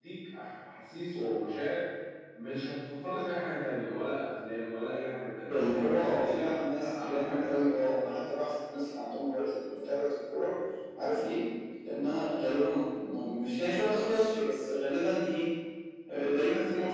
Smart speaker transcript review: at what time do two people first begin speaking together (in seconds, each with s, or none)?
5.5 s